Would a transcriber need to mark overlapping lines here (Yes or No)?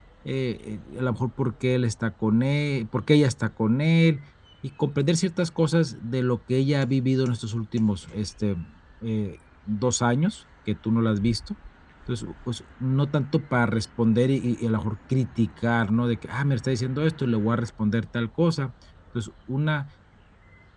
No